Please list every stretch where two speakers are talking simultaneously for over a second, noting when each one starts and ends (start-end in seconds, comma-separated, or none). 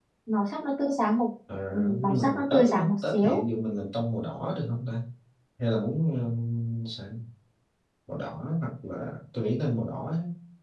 2.0-3.4